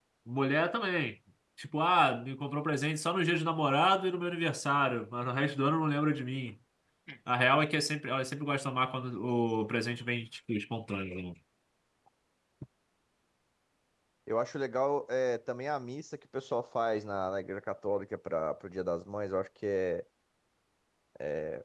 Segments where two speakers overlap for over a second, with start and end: none

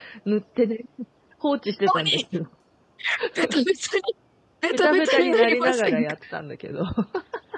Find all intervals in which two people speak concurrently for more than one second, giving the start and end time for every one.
4.7-6.1

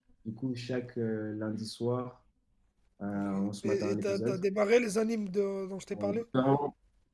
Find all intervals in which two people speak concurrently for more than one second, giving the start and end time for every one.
3.1-4.4

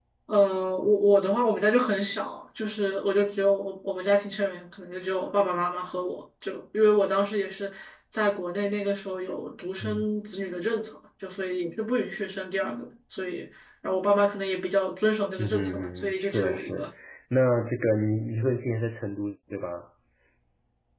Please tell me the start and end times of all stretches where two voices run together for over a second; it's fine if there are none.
15.4-16.9

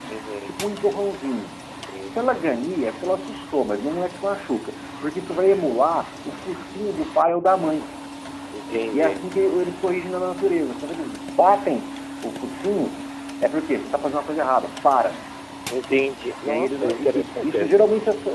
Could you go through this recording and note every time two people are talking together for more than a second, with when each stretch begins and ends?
16.4-17.8

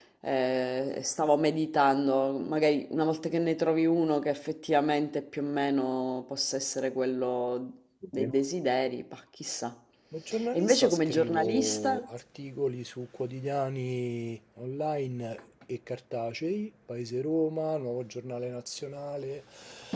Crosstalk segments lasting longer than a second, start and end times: 10.5-12.1

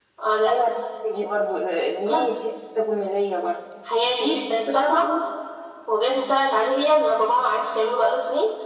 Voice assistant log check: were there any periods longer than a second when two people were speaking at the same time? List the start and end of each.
none

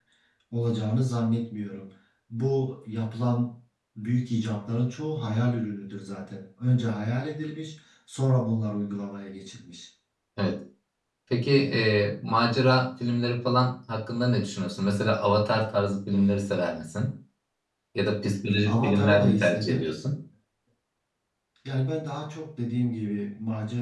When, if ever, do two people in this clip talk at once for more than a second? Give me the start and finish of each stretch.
18.6-20.0

